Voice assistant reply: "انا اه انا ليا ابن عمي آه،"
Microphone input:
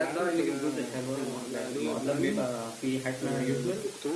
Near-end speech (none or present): present